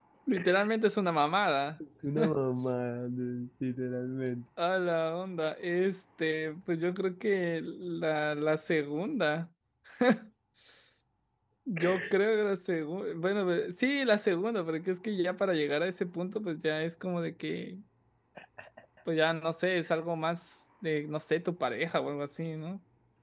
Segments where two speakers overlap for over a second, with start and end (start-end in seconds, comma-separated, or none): none